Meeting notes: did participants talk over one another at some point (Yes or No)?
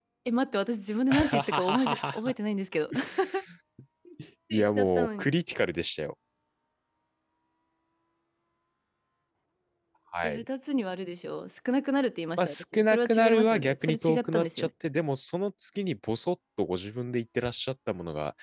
Yes